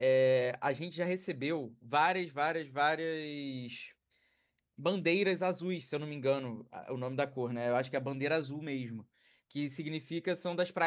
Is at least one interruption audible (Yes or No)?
No